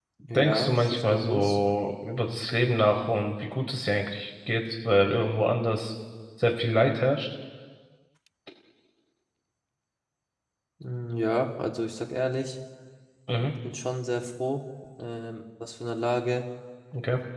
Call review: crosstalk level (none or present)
present